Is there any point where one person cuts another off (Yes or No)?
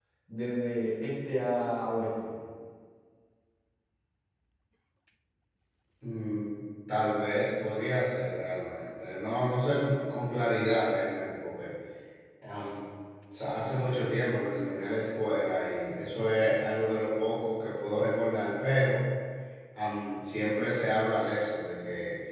No